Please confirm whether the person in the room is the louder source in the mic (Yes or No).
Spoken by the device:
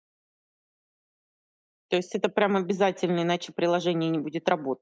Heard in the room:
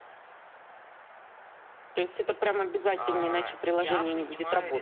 No